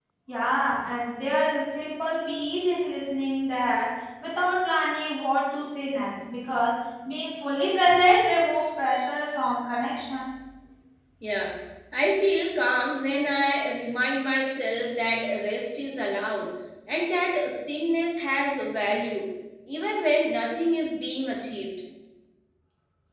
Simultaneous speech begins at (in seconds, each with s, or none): none